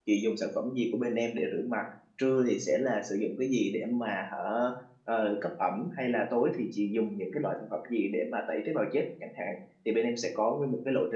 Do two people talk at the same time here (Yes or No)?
No